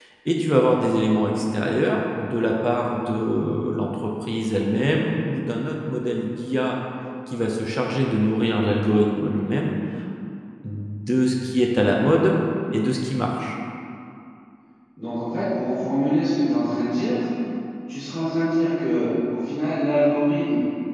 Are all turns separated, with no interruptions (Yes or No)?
Yes